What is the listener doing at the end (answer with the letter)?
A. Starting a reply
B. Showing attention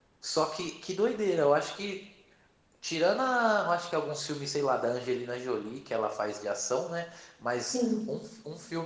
B